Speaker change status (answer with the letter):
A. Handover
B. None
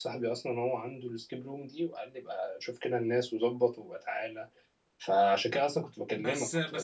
A